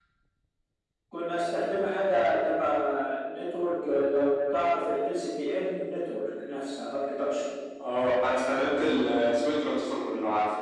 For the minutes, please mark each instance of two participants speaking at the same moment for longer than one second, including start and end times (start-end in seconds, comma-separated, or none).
none